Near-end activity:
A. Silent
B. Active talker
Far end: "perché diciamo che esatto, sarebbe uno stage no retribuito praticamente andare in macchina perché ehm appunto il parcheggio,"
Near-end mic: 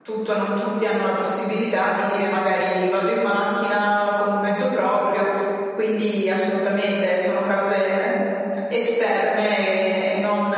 B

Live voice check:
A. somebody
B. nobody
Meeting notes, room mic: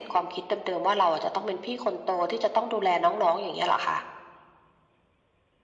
B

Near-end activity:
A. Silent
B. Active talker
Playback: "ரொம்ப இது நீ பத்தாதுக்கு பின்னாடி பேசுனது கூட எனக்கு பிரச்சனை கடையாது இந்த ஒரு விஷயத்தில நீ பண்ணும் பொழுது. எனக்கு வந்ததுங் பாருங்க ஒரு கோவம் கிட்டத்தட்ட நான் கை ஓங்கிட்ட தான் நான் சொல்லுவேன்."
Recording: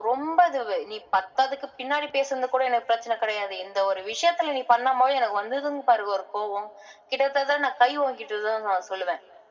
A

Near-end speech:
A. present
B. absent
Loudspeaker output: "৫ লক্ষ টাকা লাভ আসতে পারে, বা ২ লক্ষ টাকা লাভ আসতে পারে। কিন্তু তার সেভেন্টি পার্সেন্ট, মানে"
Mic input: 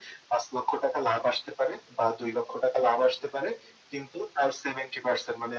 B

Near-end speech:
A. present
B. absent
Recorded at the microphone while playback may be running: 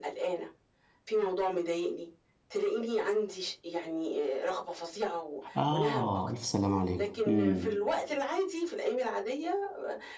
A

